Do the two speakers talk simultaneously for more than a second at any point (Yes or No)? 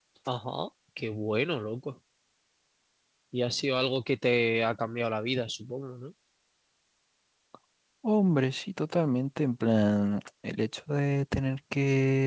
No